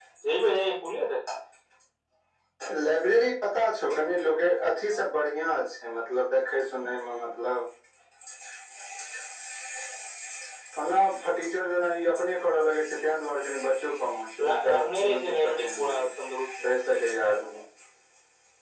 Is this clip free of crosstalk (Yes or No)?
No